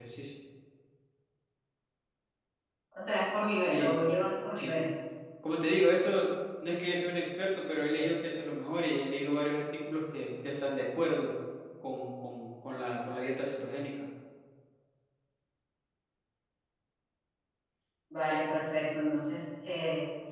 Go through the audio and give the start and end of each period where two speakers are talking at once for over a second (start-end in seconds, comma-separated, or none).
none